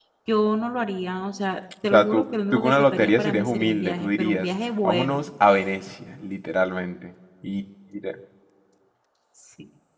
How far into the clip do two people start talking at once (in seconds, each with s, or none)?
1.8 s